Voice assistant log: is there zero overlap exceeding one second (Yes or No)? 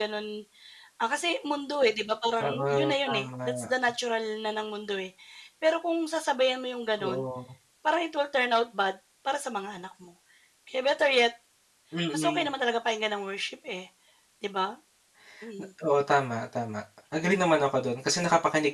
No